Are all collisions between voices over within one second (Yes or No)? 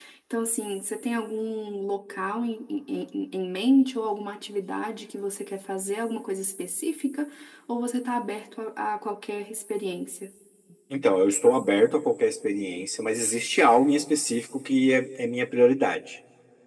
Yes